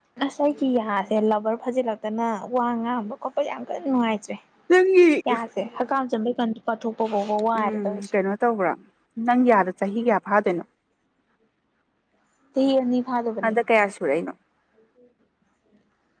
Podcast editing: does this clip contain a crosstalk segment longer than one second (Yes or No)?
No